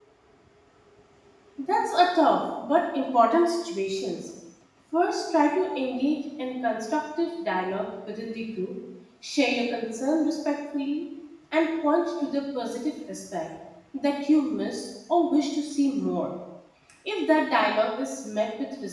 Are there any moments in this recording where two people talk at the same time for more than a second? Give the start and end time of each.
none

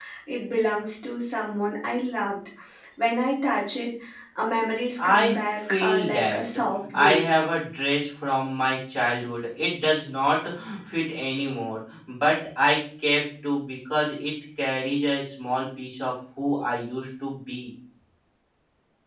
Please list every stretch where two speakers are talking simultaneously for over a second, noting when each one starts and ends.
5.0-6.4

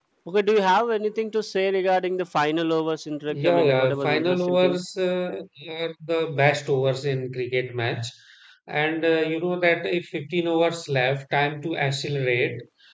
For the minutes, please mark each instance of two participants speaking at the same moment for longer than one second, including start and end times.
3.4-4.8

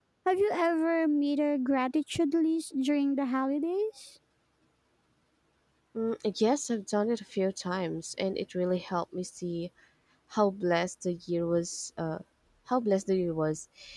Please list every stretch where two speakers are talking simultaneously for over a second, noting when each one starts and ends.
none

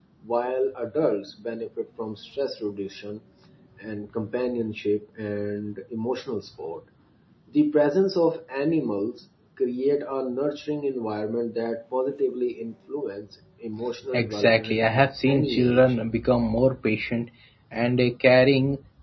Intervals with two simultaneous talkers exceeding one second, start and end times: 14.1-15.8

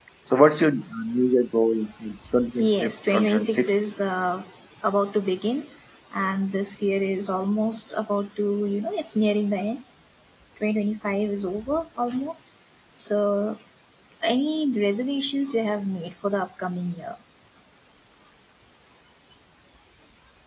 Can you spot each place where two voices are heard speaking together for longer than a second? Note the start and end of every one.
2.6-3.8

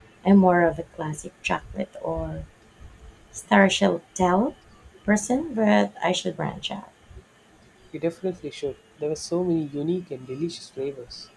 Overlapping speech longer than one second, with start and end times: none

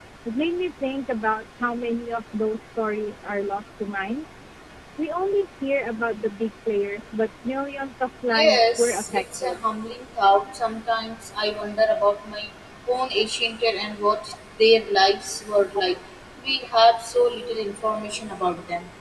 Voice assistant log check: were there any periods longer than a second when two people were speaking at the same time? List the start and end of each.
8.3-9.6

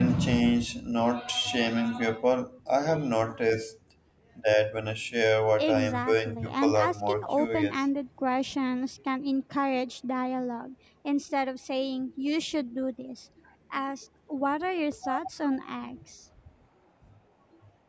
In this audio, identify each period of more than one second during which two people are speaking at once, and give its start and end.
5.6-7.7

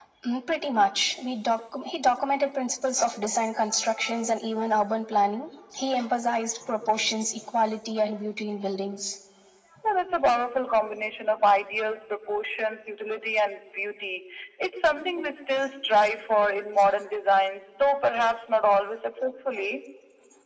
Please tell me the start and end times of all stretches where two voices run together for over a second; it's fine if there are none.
none

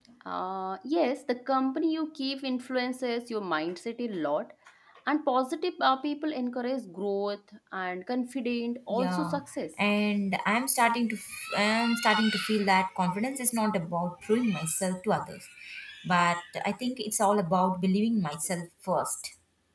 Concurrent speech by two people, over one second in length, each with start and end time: none

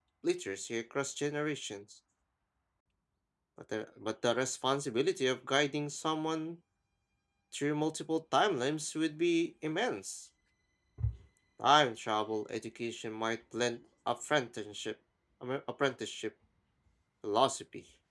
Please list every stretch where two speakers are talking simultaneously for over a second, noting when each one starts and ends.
none

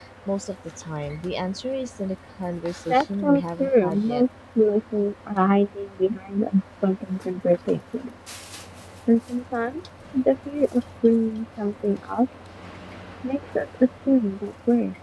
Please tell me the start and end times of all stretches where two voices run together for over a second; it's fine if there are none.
2.9-4.2

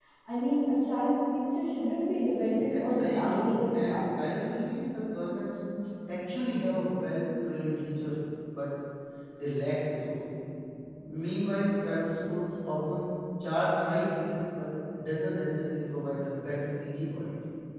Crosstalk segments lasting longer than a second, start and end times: 2.3-4.0

